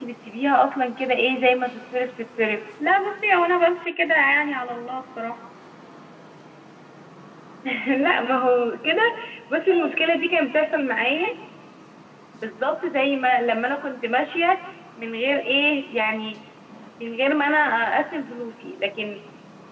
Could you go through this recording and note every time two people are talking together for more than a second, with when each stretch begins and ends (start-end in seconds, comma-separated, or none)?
none